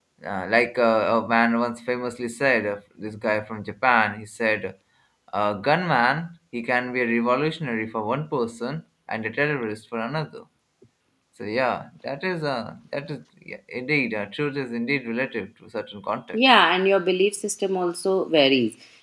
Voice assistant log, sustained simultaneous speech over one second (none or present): none